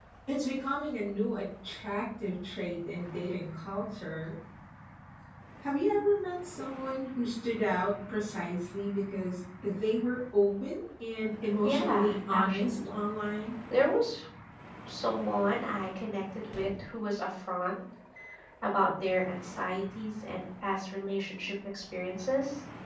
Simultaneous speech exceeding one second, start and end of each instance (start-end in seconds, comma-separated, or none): 11.6-12.9